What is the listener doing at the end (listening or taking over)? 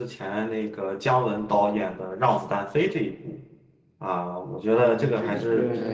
taking over